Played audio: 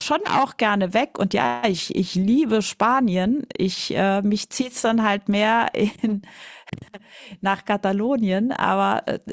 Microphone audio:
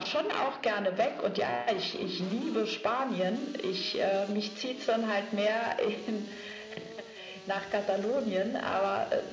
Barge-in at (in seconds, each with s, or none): none